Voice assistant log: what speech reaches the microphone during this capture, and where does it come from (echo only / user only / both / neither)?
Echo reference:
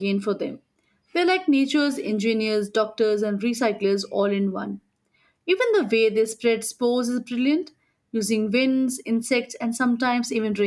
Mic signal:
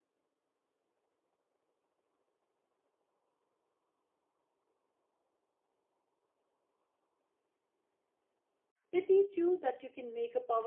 user only